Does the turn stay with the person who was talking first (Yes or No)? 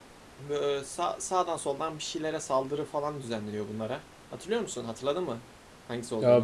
No